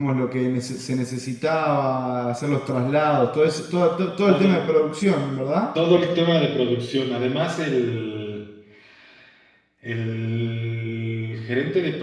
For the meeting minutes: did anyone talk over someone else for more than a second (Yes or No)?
No